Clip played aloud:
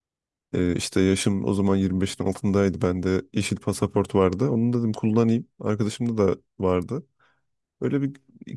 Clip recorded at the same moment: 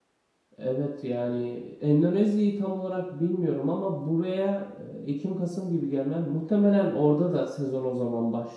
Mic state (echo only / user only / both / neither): user only